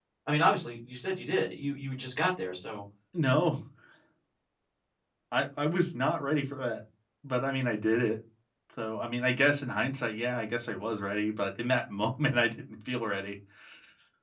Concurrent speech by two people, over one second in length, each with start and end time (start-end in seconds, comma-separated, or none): none